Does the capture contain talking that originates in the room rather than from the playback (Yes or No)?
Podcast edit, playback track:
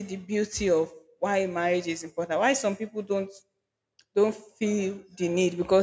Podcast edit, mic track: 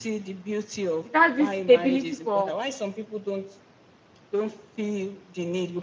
Yes